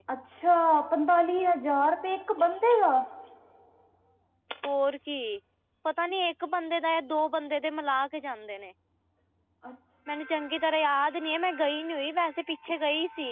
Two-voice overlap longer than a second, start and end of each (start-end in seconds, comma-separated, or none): none